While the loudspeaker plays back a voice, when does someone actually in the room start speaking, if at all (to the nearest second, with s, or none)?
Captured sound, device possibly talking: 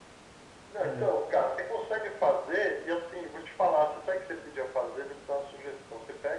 1 s